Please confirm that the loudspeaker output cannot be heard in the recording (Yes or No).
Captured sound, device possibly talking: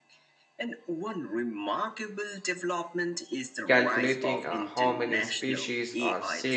No